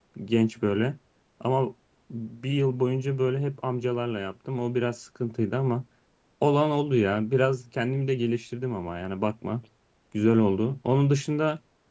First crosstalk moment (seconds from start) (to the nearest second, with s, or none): none